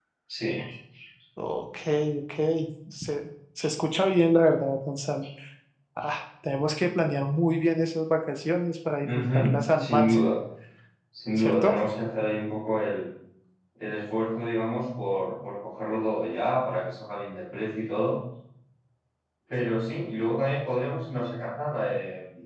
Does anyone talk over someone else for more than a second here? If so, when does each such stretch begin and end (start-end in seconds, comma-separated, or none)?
9.0-10.2